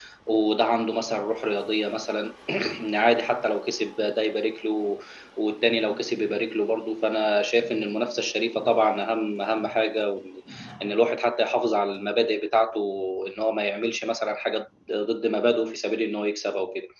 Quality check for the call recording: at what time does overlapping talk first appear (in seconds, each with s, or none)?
none